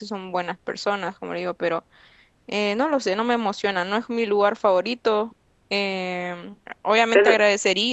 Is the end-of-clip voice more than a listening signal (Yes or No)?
No